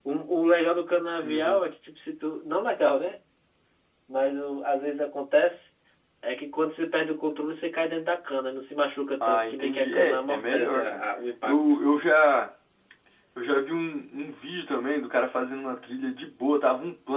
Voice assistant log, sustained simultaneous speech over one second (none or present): present